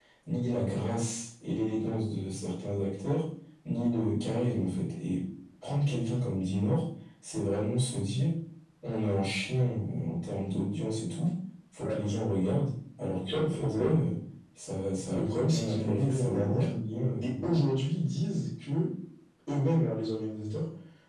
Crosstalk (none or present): present